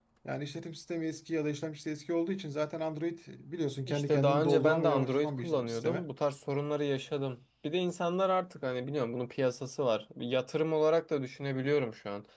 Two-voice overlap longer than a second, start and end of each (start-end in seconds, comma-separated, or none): 3.9-6.0